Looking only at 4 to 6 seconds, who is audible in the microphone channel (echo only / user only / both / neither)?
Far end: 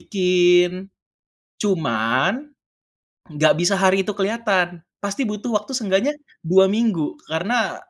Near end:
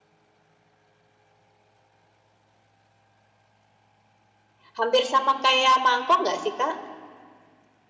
user only